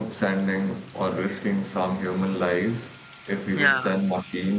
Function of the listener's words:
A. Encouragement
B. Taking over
A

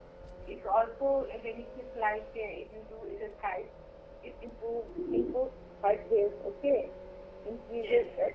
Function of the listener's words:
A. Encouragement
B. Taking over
A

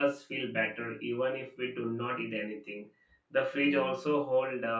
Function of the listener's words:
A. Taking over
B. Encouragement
B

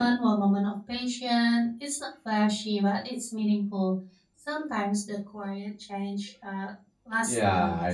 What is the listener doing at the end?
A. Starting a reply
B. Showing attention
A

